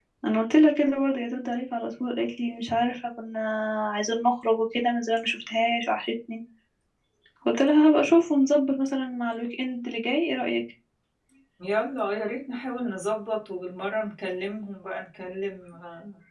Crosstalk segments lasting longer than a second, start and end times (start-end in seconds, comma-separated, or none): none